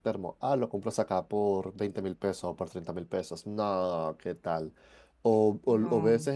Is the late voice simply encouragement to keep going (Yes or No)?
Yes